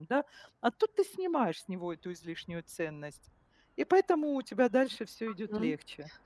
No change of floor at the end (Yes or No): No